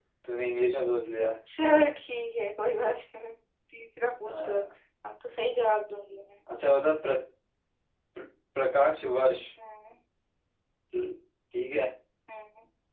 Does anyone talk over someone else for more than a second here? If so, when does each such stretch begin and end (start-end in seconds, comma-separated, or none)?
none